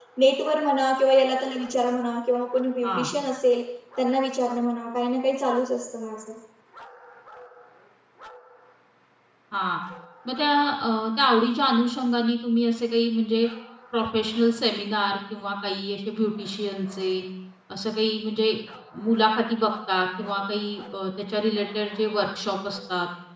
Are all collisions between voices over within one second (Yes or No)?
Yes